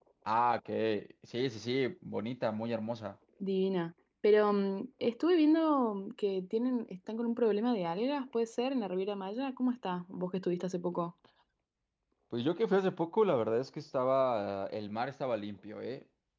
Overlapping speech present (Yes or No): No